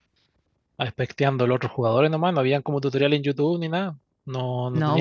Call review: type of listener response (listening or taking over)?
taking over